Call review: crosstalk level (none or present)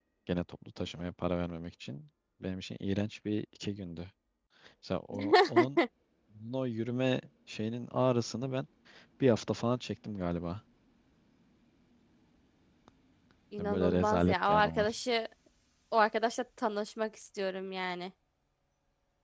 present